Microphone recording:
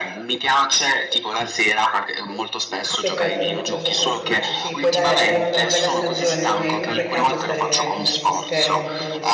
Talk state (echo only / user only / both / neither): both